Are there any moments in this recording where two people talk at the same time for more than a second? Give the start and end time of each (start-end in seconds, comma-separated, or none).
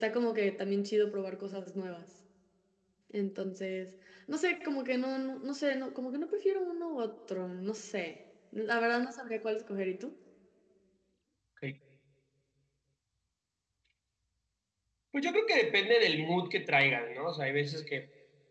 none